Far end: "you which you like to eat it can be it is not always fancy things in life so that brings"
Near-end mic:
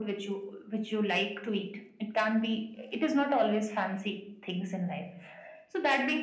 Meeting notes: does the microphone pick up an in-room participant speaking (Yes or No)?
No